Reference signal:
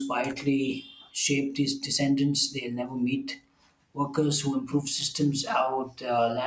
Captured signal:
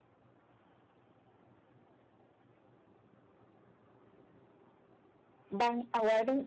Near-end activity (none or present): present